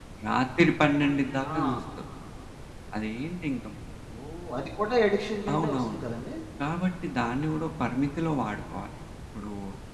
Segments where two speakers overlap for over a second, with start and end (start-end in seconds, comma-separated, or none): none